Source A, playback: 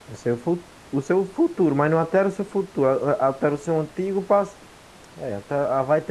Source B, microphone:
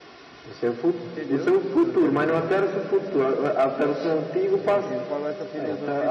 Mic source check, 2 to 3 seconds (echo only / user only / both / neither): both